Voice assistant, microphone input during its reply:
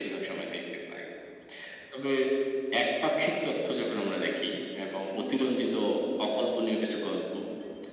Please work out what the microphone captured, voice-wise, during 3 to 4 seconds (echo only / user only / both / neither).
echo only